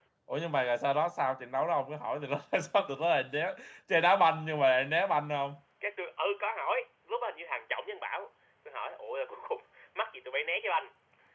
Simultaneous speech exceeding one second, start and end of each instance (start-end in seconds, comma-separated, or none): none